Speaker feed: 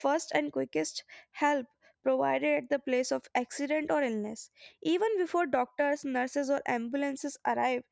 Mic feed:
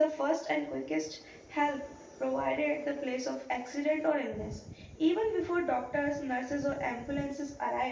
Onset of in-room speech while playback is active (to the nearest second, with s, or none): none